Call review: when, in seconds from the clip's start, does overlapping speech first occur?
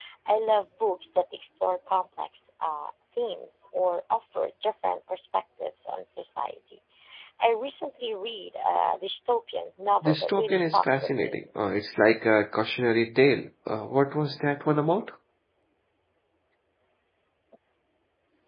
10.0 s

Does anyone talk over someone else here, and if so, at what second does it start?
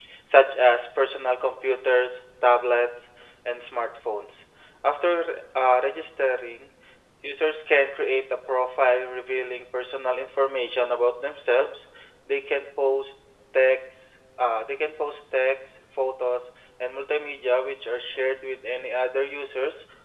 none

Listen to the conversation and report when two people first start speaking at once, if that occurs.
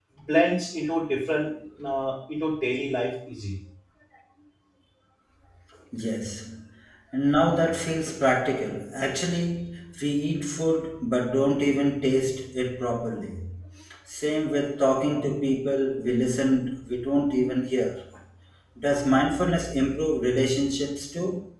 none

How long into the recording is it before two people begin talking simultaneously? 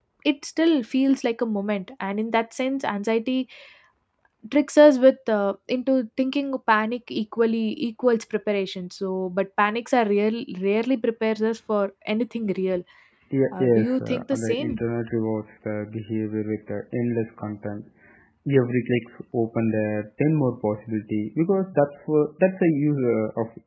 13.5 s

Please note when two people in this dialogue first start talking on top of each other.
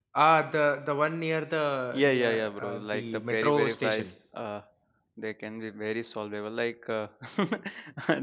1.9 s

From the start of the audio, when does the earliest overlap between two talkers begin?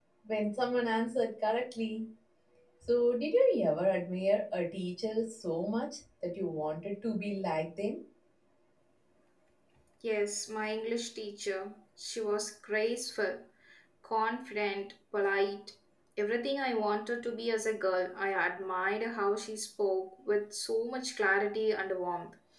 none

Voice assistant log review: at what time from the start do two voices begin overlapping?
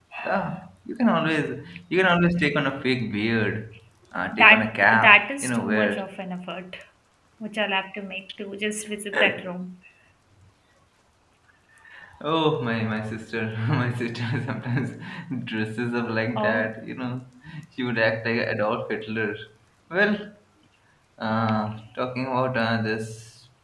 4.4 s

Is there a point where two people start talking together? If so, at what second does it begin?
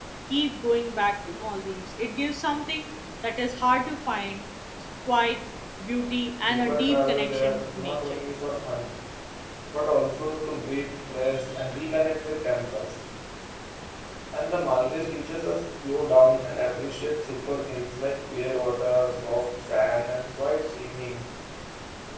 6.5 s

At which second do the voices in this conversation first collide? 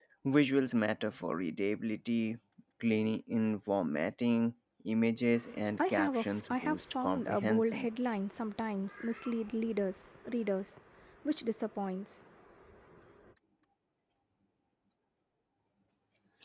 5.9 s

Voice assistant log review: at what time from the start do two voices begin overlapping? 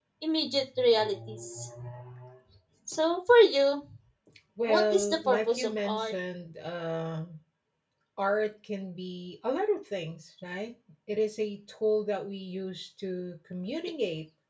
4.7 s

